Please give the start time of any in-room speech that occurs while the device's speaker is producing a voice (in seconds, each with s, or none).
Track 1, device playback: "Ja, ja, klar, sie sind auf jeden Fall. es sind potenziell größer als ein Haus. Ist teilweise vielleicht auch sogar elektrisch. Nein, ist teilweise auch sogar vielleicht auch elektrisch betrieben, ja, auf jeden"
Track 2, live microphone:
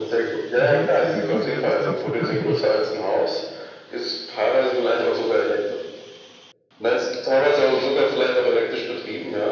0.5 s